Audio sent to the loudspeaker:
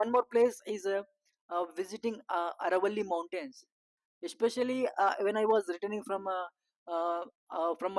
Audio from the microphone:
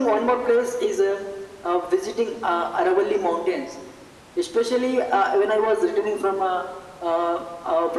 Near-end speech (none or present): none